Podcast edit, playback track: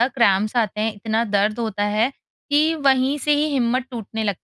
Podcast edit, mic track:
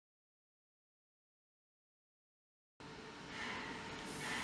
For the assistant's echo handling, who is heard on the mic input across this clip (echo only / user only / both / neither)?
neither